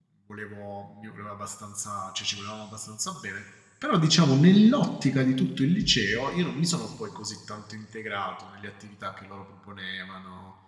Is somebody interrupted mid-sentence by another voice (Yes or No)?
No